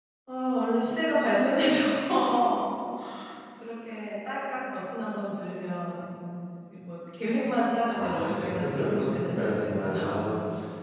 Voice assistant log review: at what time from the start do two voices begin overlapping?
7.9 s

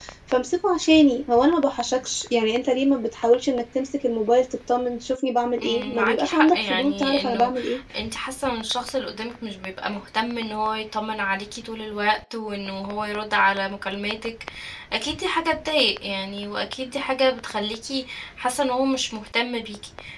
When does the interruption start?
5.6 s

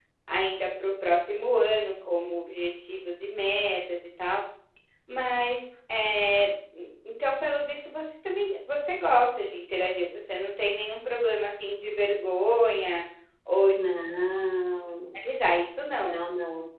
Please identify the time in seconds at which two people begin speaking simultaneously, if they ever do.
none

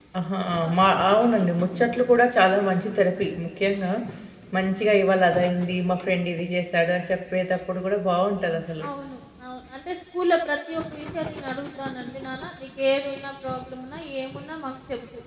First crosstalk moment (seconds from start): none

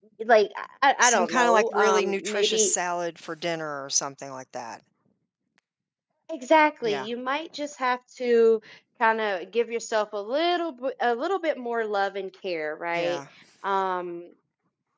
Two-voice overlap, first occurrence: 1.0 s

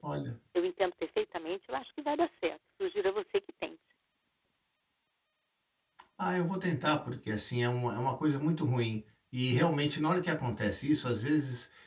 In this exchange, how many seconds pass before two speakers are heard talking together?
none

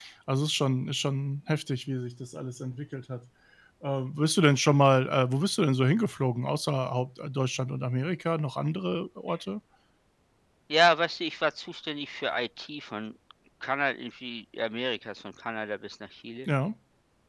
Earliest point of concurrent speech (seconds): none

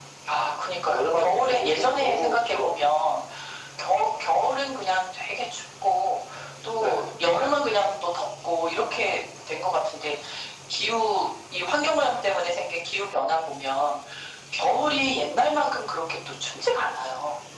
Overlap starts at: 0.8 s

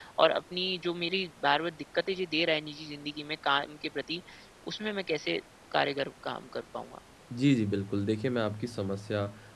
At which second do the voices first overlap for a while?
none

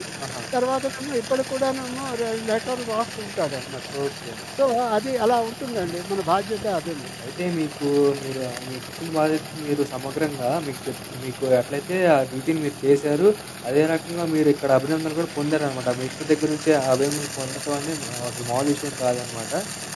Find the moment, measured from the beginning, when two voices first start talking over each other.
none

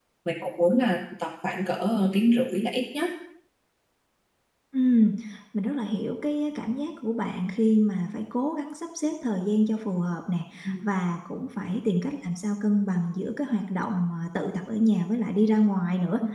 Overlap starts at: none

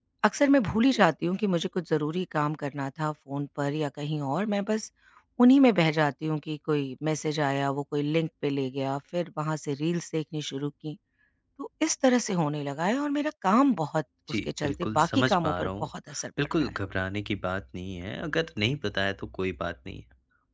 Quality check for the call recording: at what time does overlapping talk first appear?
14.3 s

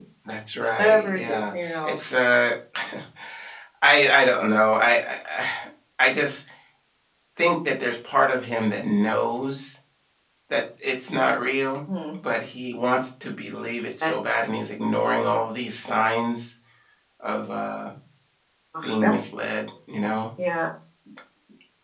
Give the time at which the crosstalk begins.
0.8 s

